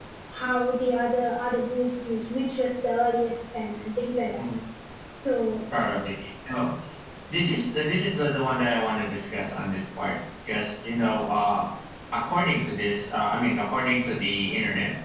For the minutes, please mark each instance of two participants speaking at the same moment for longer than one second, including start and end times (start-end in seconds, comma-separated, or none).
none